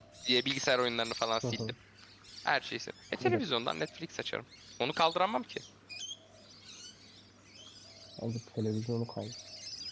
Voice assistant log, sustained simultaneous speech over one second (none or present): none